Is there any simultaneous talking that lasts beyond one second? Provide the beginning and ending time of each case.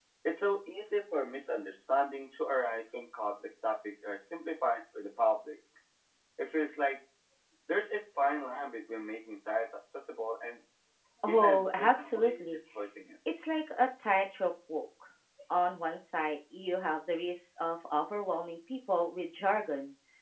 11.3-12.6

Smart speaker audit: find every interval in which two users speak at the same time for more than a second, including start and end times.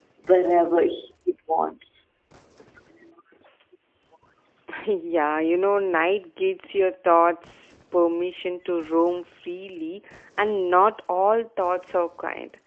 none

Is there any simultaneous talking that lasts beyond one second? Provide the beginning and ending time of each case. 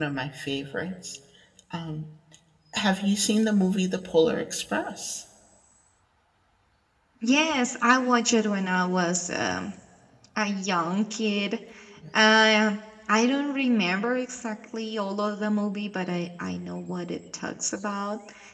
none

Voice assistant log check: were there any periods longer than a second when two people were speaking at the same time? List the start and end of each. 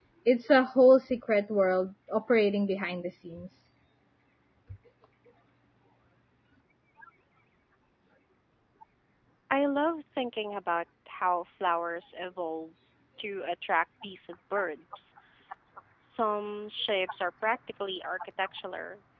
none

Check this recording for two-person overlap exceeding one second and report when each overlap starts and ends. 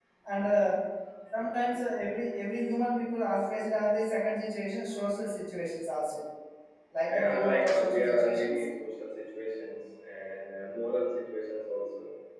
7.0-8.7

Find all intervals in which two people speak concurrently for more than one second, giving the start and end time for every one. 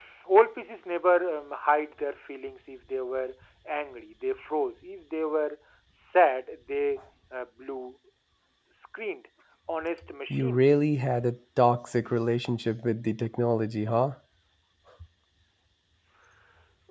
none

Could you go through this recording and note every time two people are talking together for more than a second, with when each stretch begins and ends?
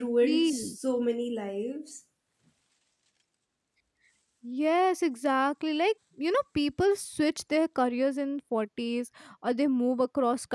none

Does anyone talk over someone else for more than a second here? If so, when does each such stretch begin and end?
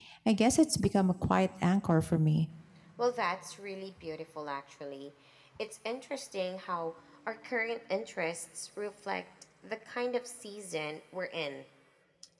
none

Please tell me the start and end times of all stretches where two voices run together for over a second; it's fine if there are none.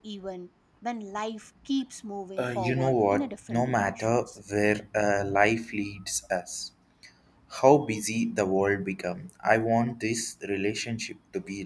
2.4-4.1

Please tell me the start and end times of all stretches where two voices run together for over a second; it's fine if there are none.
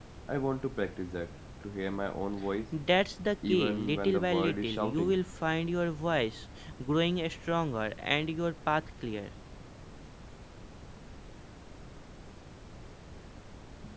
3.5-5.2

